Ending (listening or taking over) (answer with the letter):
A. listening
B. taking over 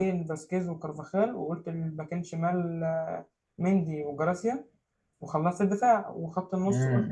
B